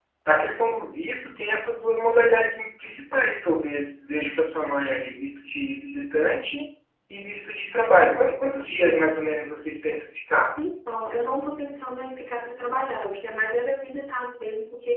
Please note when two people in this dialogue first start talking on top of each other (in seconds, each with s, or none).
none